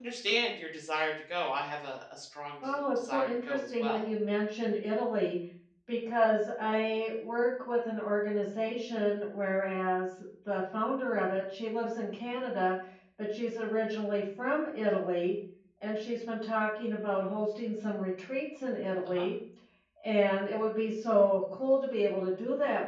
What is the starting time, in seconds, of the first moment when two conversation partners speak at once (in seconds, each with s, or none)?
2.6 s